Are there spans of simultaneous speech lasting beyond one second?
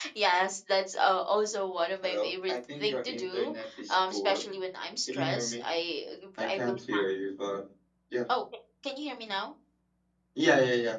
Yes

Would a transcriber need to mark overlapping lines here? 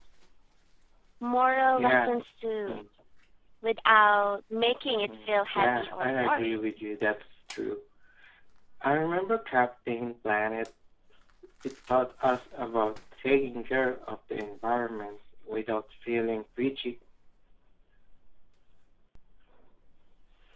Yes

